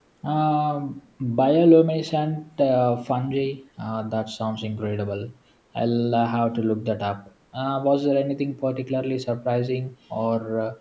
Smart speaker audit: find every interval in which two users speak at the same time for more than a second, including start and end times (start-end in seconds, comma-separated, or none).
none